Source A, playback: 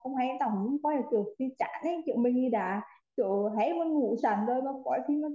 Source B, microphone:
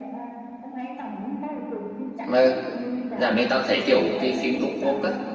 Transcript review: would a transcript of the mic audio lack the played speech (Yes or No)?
No